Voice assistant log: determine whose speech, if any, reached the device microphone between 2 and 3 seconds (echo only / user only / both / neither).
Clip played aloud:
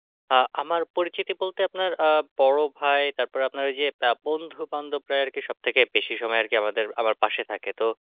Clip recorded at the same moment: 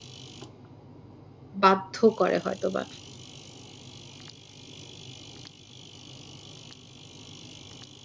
user only